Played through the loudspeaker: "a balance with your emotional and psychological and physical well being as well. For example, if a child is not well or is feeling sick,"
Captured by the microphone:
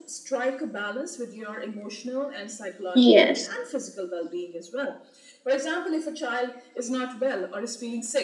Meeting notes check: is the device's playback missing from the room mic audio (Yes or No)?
No